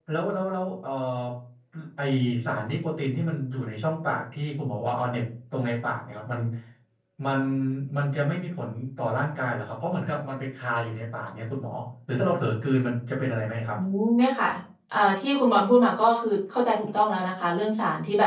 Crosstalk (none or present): none